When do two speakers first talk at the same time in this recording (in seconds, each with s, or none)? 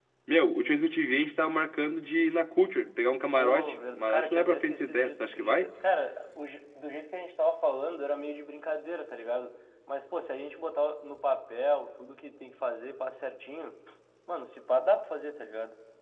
3.4 s